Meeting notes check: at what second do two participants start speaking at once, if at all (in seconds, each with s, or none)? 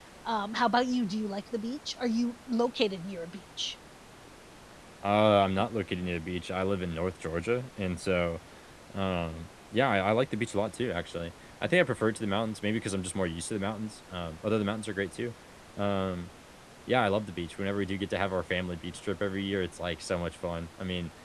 none